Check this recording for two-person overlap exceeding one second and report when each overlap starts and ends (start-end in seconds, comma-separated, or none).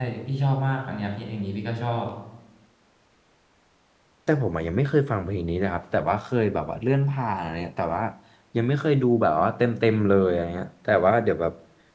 none